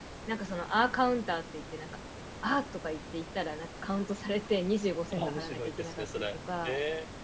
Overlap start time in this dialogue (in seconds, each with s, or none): 5.1 s